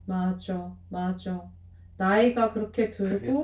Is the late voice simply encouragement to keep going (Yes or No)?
Yes